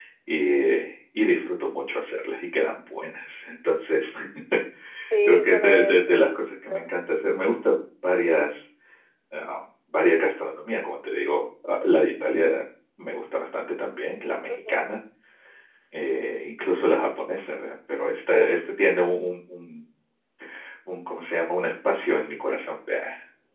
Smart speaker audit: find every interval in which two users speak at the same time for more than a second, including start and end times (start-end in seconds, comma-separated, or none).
5.2-6.8